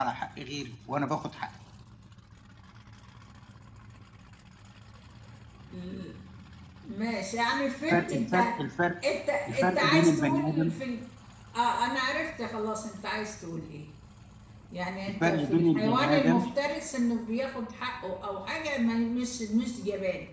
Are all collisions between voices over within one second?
No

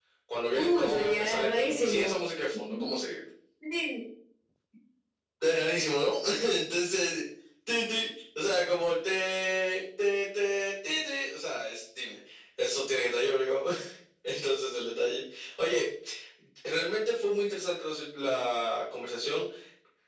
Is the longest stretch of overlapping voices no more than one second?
No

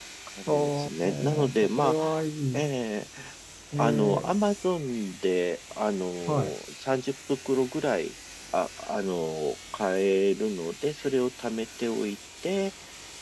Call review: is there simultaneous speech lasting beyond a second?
Yes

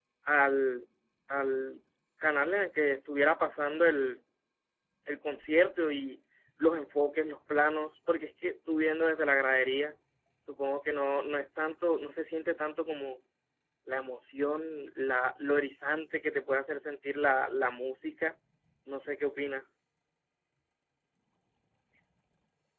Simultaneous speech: No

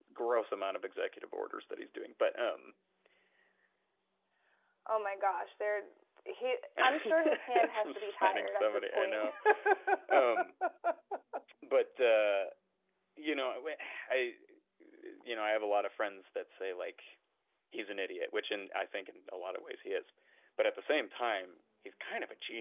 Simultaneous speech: Yes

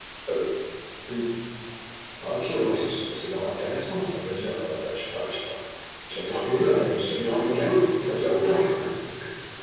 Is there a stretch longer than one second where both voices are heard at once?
Yes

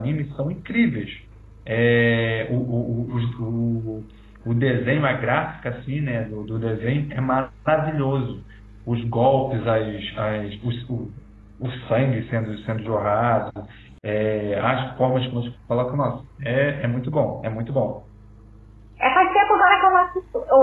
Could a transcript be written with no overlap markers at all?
Yes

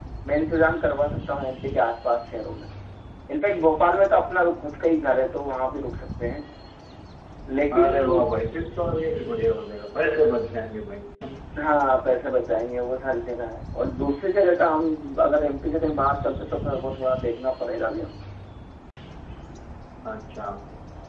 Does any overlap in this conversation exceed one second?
No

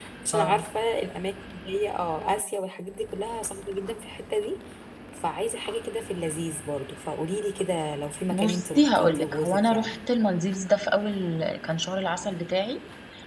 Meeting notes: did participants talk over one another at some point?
Yes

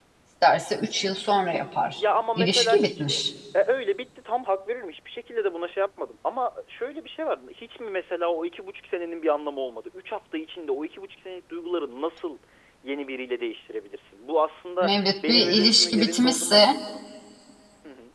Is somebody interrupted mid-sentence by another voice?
Yes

